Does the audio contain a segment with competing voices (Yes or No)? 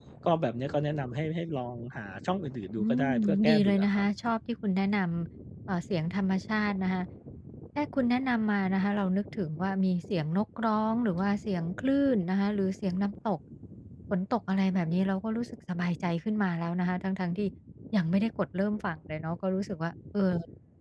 Yes